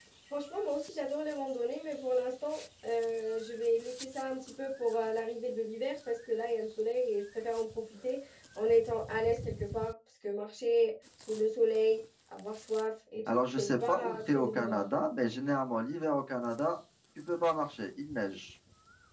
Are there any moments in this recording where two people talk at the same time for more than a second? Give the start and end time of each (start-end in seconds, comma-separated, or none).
13.3-14.9